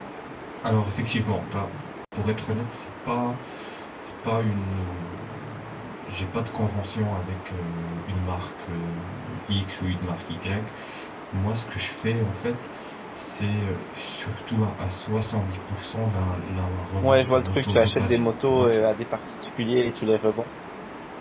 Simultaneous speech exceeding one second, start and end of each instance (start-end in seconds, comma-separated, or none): 17.0-18.8